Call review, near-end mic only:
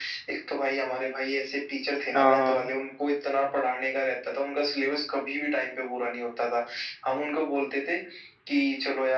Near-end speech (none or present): present